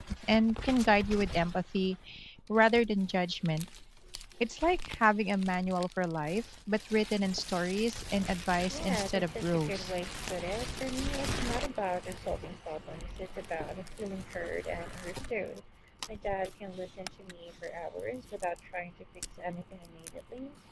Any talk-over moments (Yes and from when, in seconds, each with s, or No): Yes, from 8.7 s